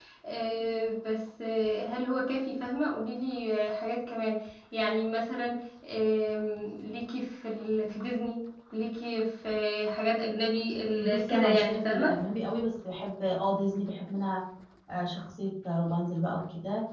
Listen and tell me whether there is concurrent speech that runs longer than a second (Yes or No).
Yes